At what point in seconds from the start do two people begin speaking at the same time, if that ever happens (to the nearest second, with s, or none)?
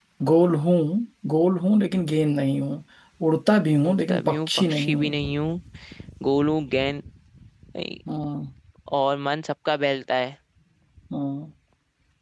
4 s